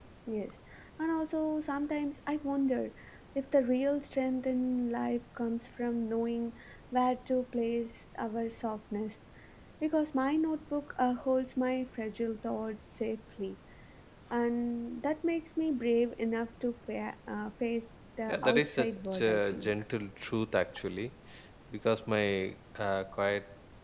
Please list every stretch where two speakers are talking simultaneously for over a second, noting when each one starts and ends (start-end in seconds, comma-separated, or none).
18.3-19.7